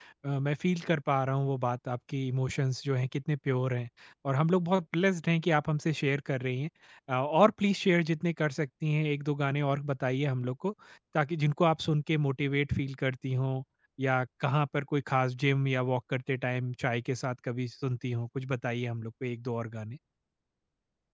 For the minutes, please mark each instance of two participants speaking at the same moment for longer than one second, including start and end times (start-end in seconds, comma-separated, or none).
none